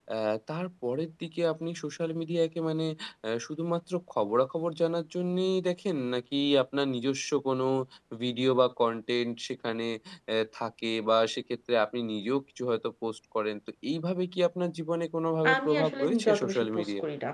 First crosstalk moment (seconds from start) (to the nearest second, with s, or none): 15 s